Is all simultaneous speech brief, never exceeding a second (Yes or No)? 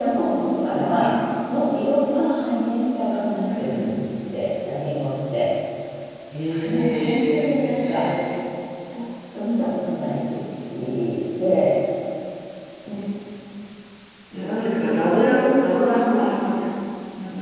No